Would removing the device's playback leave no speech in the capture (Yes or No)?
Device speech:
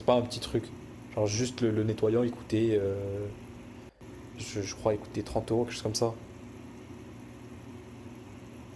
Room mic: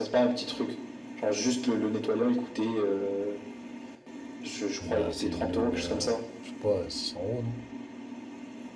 No